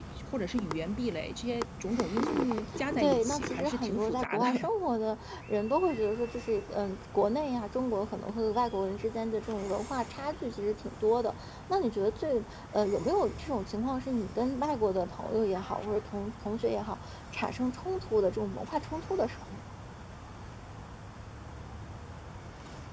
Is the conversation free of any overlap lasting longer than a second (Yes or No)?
No